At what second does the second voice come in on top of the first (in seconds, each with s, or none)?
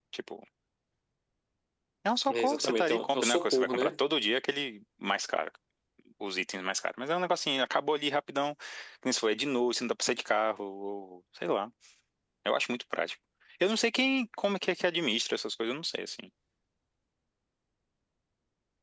2.3 s